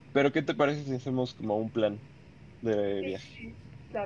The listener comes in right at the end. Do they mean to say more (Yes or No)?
Yes